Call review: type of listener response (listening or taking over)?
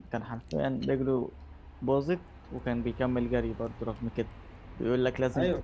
listening